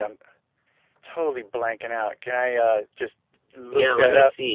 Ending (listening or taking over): taking over